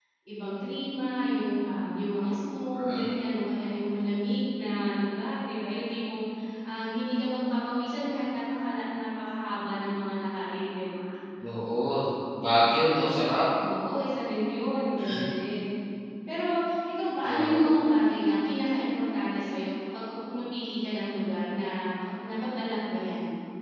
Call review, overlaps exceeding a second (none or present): none